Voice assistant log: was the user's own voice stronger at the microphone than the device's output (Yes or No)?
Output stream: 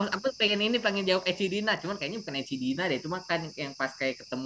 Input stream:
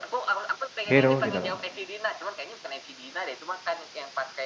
Yes